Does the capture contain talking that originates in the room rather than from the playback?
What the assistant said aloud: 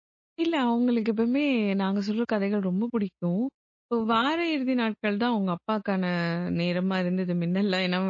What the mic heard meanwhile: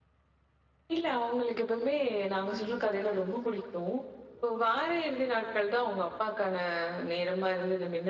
Yes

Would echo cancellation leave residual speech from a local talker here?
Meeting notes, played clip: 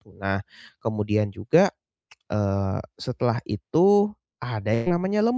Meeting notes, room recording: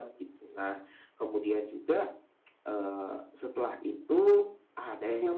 No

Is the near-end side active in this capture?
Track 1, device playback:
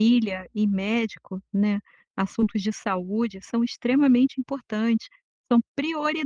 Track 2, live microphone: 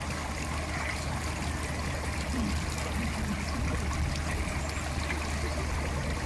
No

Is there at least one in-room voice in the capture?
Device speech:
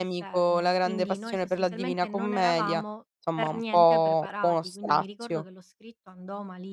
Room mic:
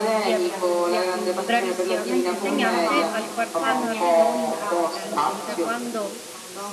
Yes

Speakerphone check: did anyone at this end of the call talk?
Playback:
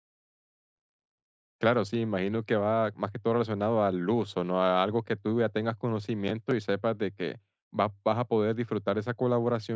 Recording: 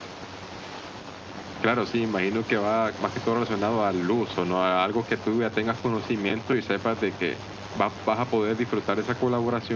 No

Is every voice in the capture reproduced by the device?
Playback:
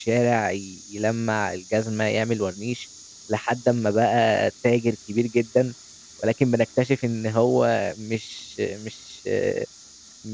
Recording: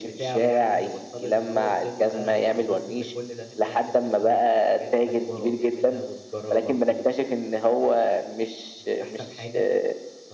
No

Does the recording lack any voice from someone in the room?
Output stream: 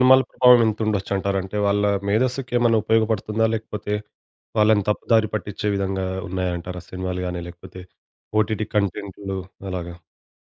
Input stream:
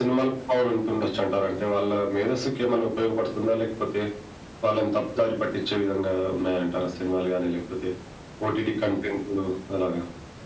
Yes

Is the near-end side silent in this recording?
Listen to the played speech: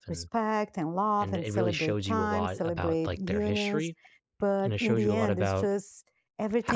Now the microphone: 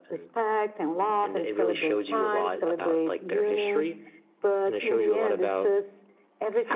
Yes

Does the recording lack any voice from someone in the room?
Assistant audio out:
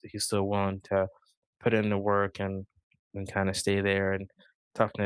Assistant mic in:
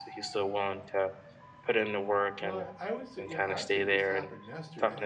No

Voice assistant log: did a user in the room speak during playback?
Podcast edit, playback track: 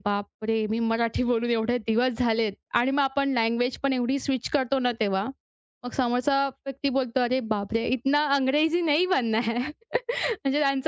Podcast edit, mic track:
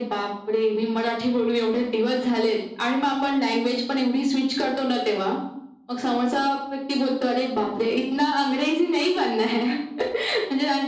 No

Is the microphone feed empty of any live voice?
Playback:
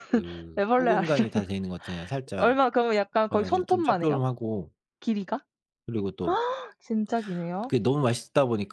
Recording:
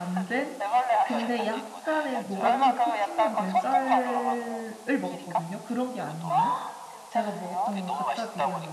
No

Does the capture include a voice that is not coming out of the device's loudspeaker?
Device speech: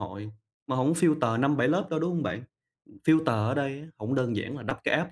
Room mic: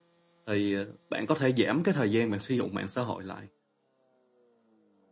Yes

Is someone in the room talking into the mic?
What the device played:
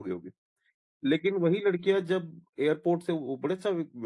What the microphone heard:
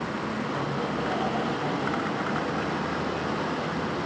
No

